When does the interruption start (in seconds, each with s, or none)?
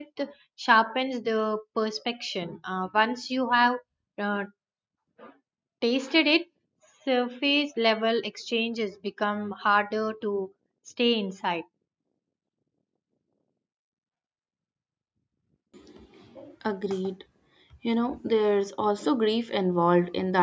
none